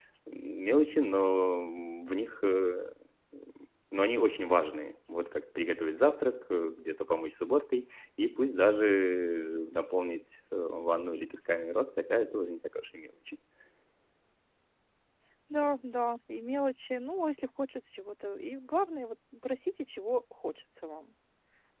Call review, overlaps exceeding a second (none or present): none